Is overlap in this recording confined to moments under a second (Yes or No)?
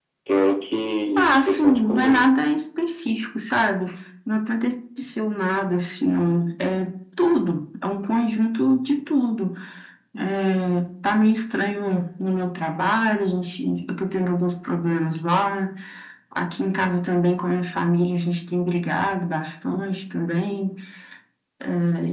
No